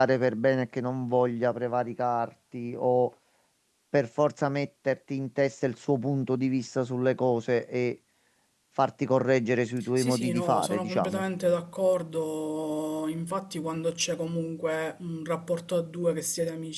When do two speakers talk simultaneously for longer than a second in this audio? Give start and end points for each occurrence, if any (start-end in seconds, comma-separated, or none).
10.0-11.2